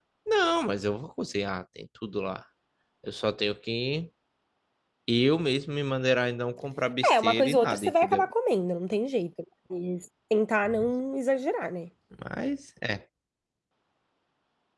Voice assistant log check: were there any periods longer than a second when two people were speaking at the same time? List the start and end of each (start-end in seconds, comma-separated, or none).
7.1-8.3